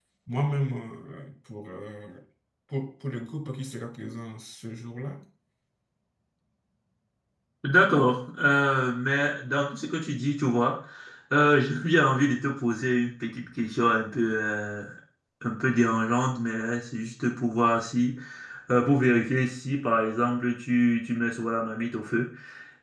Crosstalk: none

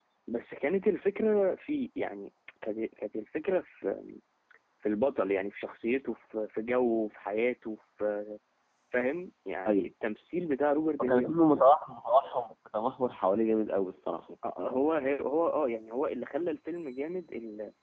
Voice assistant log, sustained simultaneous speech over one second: none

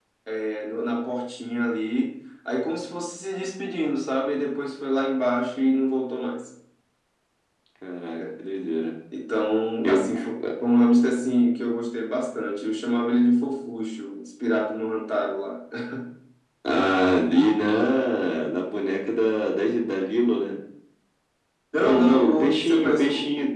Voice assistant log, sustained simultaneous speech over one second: present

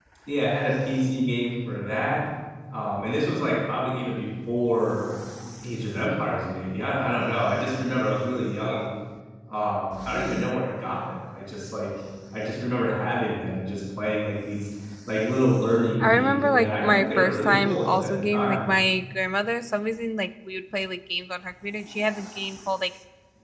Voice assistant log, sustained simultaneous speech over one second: present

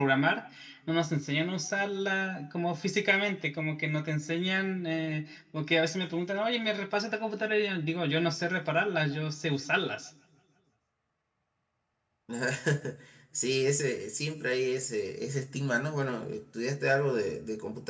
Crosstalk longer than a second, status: none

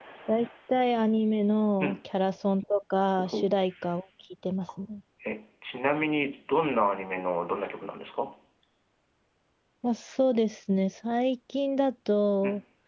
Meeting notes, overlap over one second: none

